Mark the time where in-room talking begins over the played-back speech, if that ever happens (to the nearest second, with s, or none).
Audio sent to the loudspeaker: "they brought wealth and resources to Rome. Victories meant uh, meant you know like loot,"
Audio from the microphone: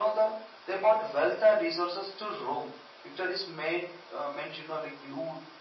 none